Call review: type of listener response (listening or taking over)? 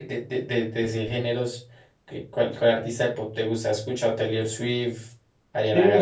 taking over